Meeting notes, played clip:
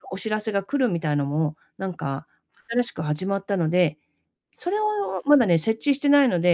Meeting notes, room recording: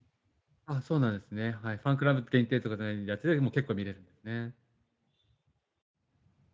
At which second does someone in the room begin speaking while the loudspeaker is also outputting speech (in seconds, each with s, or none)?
0.7 s